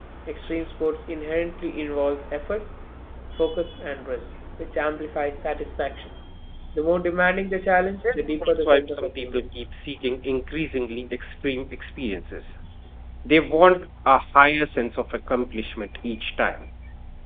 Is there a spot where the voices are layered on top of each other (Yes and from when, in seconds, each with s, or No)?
Yes, from 8.0 s